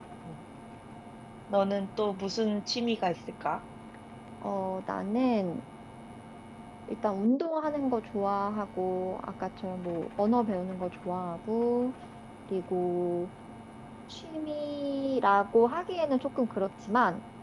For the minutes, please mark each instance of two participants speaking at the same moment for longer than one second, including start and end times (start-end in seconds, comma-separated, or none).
none